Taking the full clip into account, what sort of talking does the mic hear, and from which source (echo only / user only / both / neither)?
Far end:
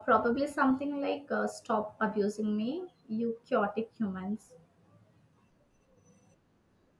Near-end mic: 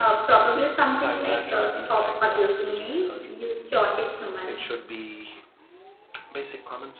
both